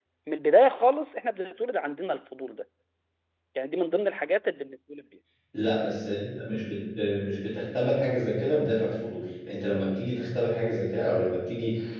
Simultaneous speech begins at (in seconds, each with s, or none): none